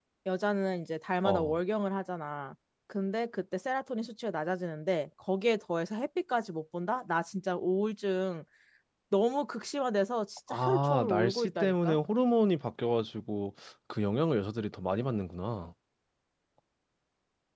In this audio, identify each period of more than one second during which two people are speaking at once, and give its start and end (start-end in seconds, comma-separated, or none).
10.5-12.0